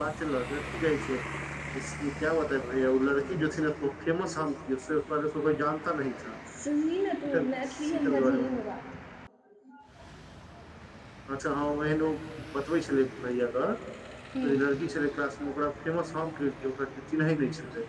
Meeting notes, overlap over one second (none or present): present